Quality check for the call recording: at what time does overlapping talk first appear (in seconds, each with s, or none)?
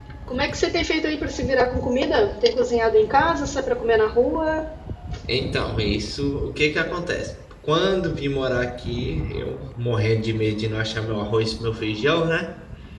none